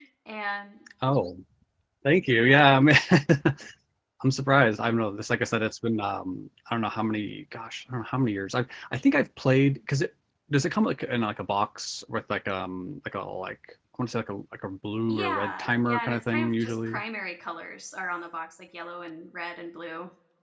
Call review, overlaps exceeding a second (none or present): present